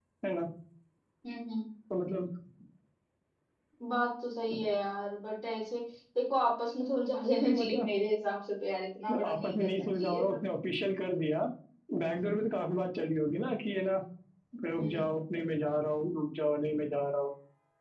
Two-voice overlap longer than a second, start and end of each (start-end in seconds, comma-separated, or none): 9.1-10.4